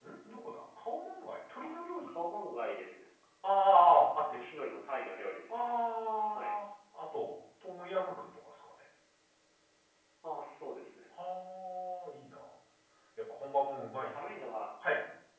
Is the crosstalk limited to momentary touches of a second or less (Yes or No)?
Yes